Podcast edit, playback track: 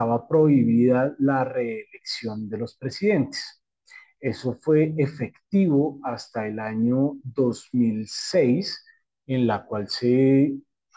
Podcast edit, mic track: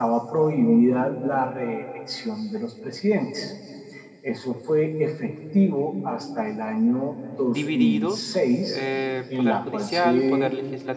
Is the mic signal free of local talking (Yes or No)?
No